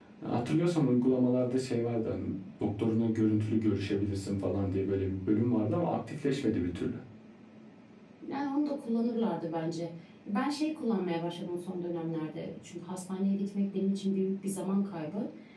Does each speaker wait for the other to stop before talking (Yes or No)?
Yes